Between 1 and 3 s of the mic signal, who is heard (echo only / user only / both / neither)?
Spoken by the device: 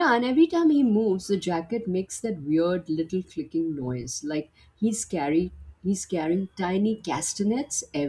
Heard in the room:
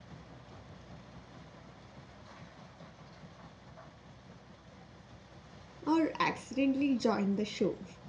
neither